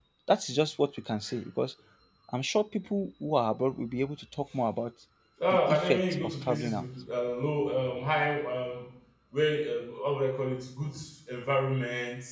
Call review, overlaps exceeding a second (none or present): present